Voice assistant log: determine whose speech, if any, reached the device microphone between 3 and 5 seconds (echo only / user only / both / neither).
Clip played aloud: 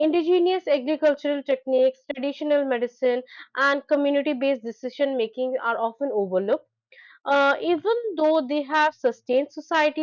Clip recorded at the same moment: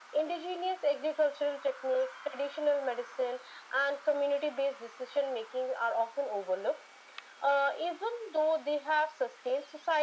echo only